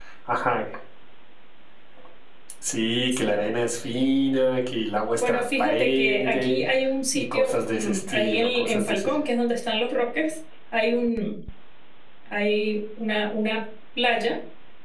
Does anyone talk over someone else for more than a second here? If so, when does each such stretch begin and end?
5.2-6.6, 7.1-9.2

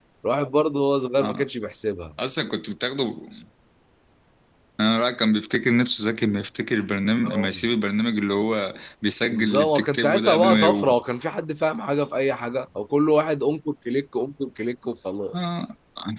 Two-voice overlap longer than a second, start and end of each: 9.3-10.9

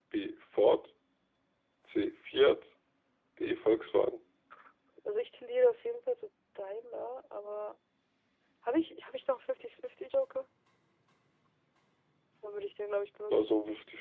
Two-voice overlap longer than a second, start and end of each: none

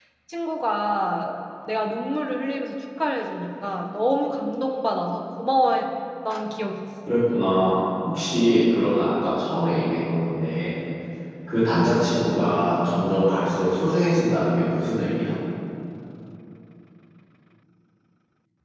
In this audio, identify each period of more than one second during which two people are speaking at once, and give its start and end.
none

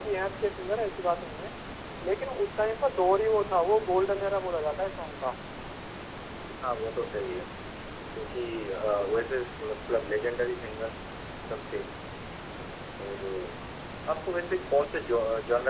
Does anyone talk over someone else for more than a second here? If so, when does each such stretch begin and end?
none

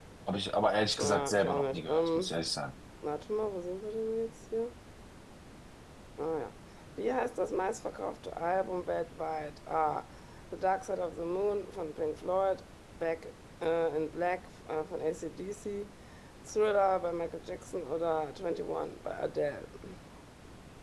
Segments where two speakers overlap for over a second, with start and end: 1.0-2.3

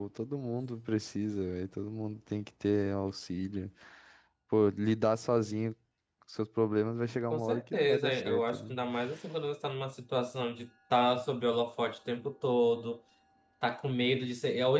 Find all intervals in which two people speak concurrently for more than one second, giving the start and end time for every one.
7.3-8.7

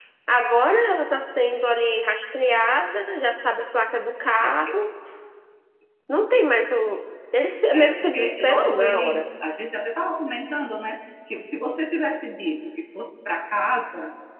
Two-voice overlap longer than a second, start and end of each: 7.7-9.2

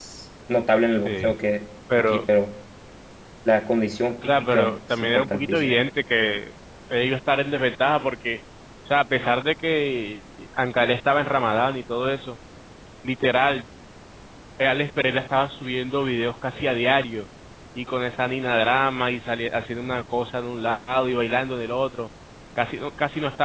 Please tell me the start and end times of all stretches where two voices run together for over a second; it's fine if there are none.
4.3-5.8

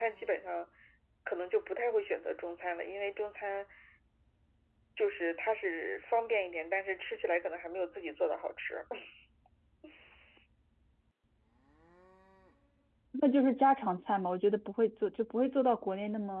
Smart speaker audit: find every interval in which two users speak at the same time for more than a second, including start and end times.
none

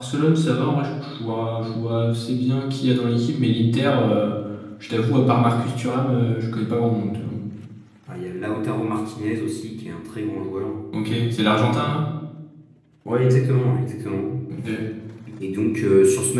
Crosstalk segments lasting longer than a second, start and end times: none

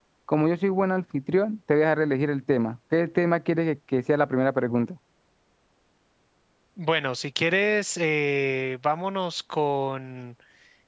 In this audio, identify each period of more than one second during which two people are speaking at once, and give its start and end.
none

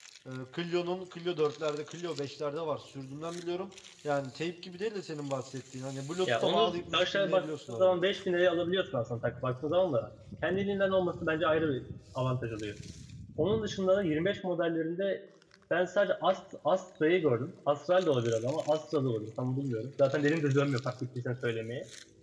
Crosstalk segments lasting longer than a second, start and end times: 6.3-8.0

